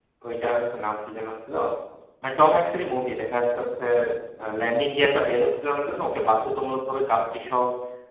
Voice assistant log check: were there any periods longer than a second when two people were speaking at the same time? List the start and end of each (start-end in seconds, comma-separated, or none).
none